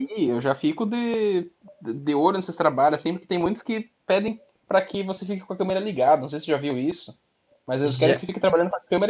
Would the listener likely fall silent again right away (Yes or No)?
Yes